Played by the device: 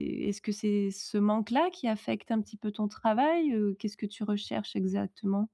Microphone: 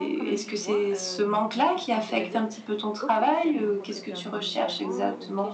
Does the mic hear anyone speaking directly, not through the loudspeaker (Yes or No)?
Yes